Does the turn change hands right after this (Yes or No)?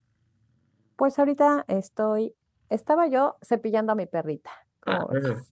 Yes